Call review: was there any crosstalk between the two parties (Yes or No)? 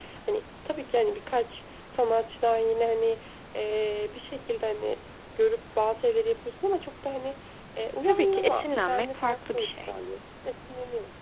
Yes